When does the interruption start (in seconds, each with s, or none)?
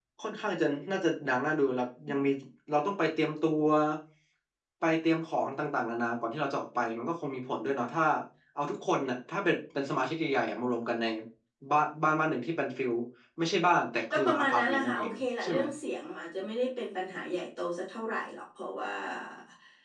14.1 s